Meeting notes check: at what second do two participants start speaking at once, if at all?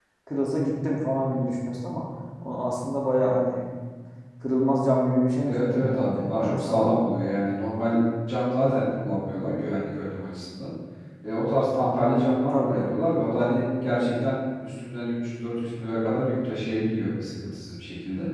5 s

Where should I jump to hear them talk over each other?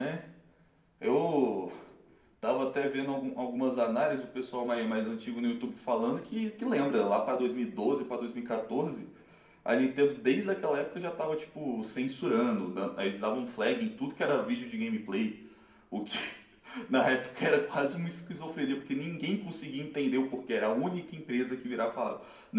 none

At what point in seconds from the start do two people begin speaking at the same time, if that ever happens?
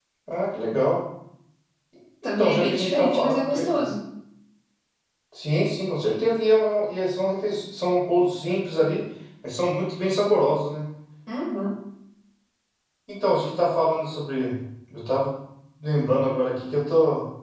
2 s

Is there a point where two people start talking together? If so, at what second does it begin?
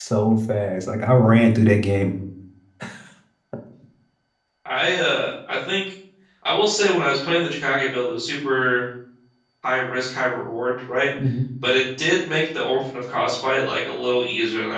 none

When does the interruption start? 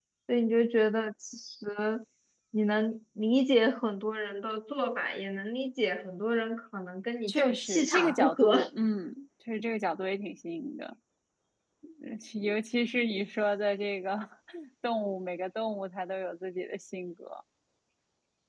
7 s

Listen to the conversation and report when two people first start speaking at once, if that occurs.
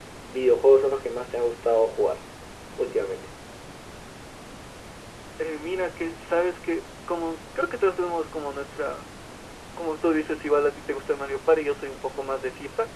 none

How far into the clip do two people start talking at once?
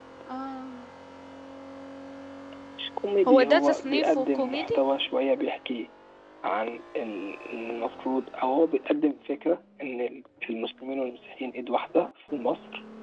3 s

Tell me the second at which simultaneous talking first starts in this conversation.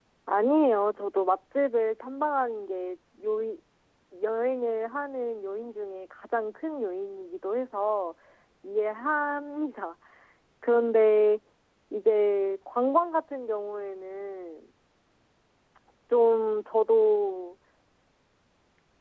none

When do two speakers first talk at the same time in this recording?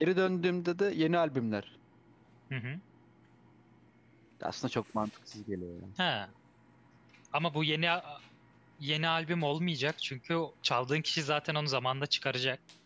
none

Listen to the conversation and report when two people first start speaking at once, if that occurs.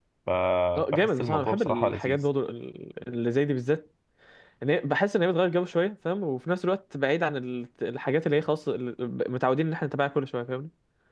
1 s

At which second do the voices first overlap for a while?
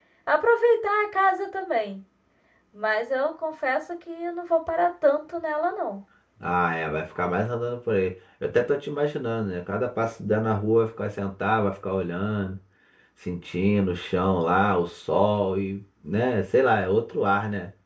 none

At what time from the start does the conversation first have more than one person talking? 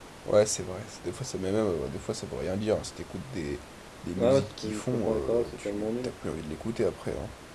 4 s

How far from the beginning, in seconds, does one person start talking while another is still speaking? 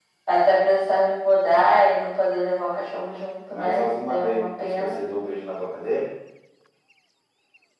3 s

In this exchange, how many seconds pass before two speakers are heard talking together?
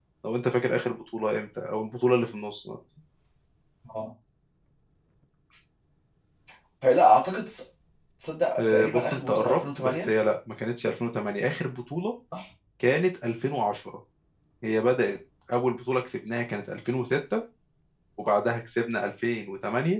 9 s

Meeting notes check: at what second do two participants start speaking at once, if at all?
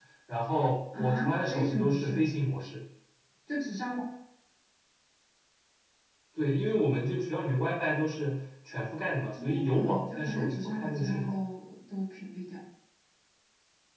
1 s

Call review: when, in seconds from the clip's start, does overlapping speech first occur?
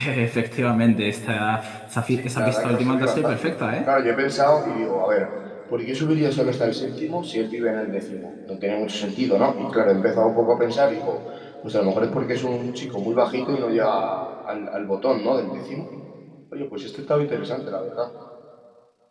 2 s

